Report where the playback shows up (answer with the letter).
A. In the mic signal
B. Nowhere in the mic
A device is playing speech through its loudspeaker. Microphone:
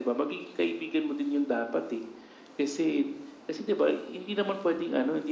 A